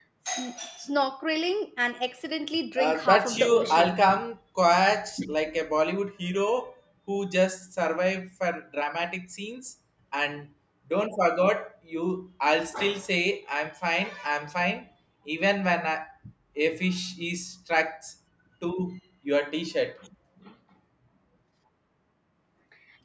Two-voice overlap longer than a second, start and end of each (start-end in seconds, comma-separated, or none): 2.8-4.2